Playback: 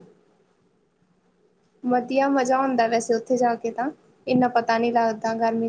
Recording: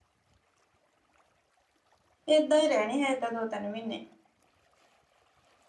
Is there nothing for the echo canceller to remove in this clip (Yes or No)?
Yes